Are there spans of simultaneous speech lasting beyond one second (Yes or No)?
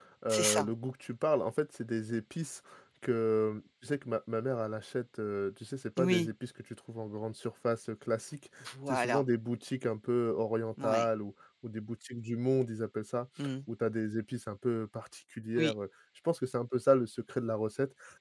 No